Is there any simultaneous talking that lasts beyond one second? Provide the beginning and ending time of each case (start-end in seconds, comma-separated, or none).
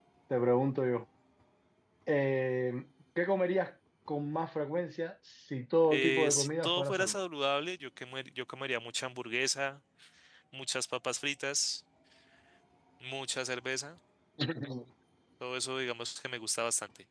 5.9-7.2